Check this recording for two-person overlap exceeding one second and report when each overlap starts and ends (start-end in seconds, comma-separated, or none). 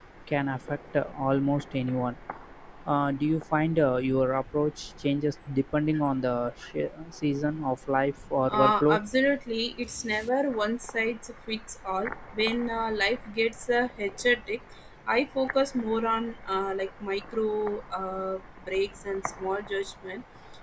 none